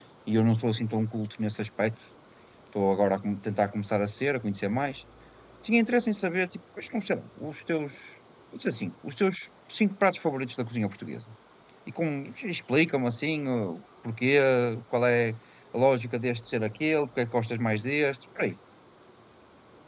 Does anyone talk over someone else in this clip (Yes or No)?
No